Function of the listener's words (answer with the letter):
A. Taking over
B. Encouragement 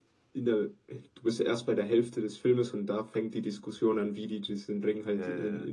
B